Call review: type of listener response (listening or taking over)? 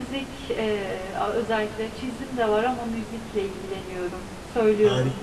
taking over